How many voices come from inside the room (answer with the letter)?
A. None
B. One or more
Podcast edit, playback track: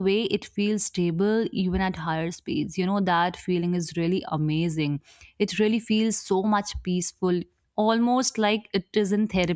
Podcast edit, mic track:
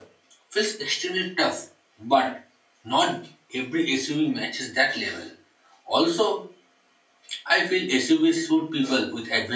B